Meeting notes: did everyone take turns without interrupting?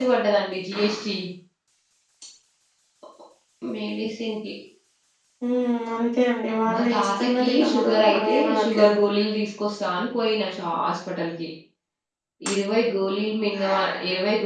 No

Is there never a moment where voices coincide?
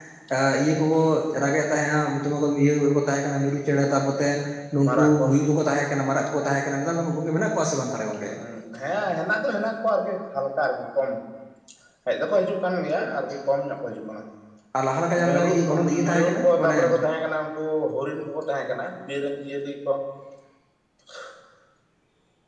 No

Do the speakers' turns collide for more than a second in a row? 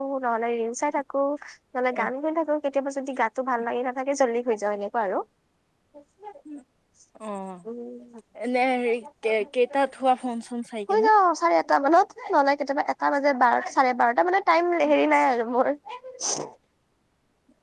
No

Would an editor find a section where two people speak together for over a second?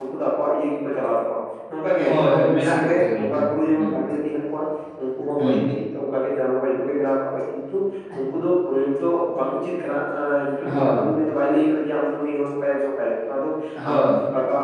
Yes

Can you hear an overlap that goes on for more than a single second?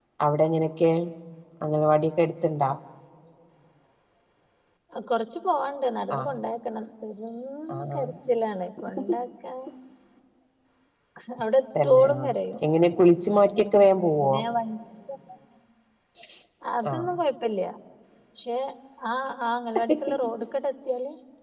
No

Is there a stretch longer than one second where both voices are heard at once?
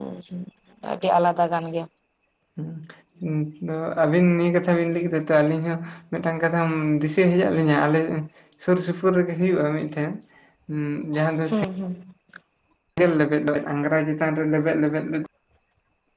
No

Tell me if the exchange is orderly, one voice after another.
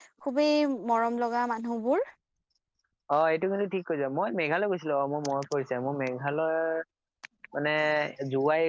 Yes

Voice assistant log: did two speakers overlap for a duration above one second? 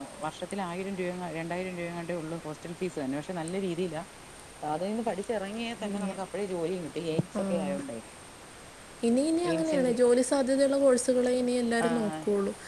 No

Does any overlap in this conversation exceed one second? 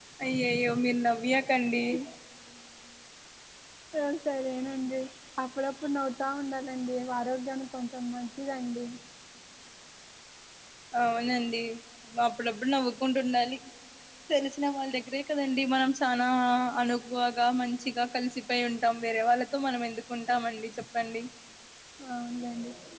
No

